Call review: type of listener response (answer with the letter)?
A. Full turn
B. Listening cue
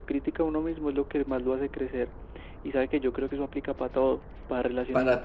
B